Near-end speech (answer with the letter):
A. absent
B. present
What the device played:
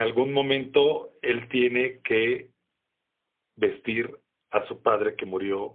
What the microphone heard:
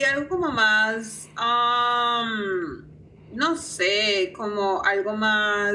B